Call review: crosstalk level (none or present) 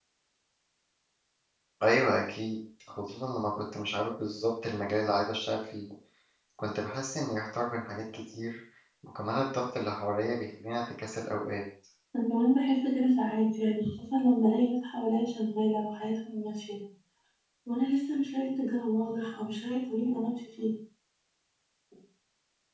none